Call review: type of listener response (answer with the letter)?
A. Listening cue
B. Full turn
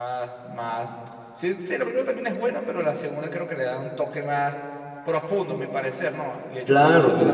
B